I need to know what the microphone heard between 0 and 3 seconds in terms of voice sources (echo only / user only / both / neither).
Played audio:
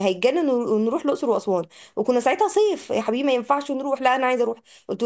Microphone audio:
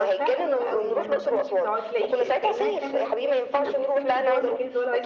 both